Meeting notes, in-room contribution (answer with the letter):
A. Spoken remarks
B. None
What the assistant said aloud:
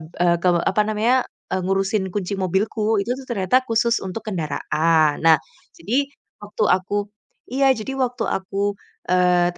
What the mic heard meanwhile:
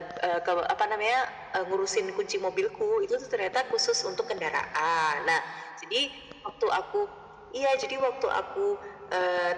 B